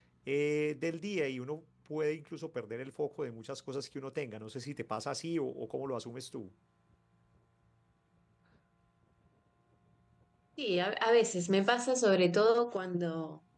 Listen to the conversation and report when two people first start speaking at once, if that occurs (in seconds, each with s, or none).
none